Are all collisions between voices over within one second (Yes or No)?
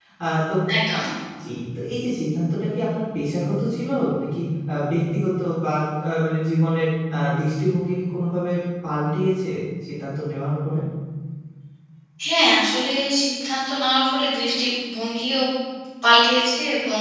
Yes